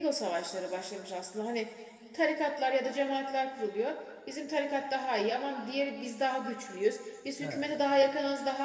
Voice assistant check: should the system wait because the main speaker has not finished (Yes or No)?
Yes